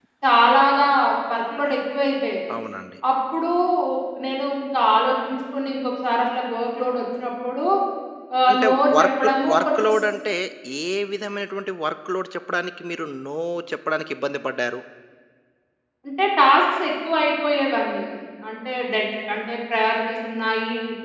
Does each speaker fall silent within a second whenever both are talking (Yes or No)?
No